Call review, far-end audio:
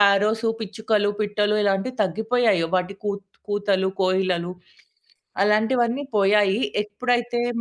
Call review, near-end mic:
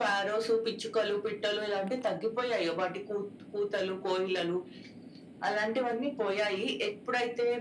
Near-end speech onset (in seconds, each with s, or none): none